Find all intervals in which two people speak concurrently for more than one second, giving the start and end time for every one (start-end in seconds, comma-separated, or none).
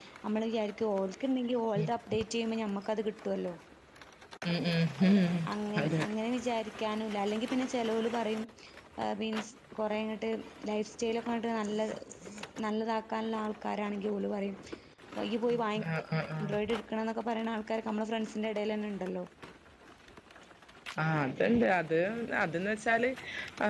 none